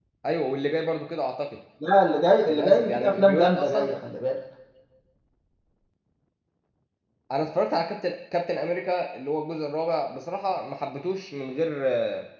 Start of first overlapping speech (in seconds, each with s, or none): 2.5 s